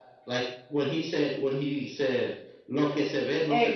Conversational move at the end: taking over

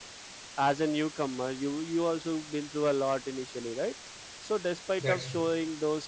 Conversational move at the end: listening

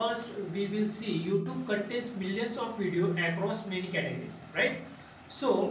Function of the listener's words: listening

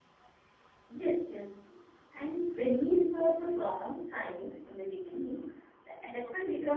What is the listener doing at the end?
listening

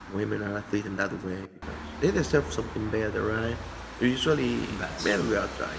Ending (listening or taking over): listening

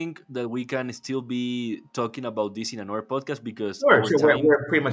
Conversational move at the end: taking over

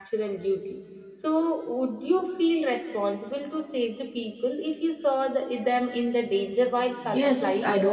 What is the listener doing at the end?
taking over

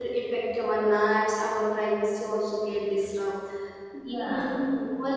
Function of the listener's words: listening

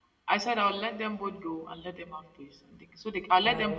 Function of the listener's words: listening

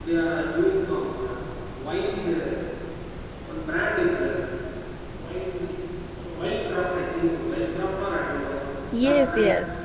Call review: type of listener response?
taking over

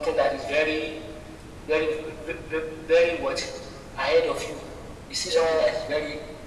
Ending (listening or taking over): listening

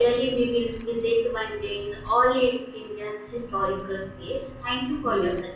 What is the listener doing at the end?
taking over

